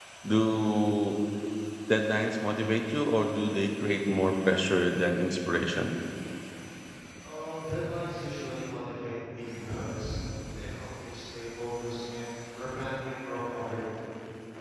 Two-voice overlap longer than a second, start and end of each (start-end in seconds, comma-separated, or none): none